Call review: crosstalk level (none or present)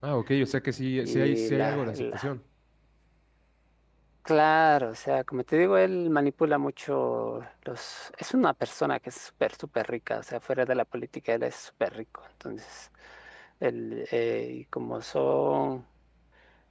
present